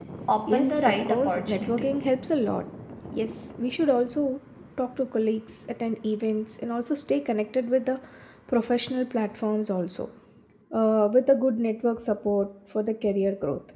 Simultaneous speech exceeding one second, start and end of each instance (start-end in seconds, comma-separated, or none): 0.5-1.9